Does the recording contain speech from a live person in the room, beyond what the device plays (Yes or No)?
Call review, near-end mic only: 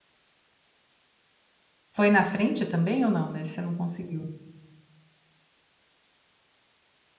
Yes